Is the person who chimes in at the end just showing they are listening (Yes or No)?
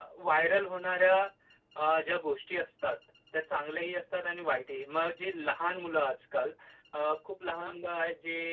Yes